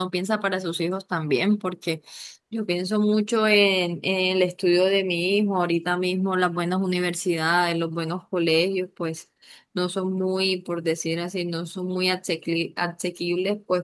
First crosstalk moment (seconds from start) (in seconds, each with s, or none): none